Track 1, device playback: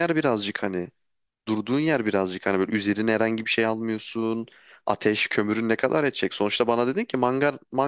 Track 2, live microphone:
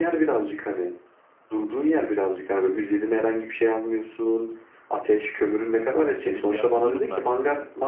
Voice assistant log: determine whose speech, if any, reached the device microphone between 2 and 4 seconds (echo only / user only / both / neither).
echo only